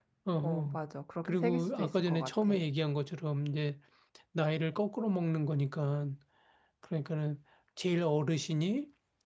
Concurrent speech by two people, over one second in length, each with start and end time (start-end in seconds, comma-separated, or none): 1.2-2.5